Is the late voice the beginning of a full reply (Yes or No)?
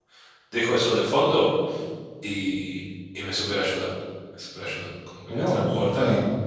Yes